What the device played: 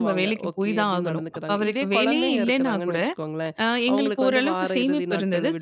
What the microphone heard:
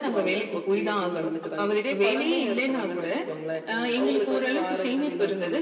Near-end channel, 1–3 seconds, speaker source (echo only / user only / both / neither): echo only